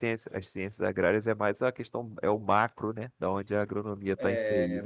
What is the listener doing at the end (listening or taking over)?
taking over